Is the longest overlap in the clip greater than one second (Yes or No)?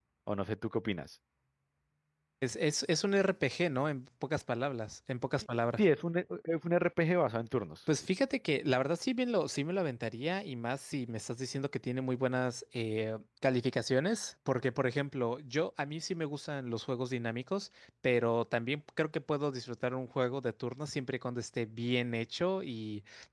No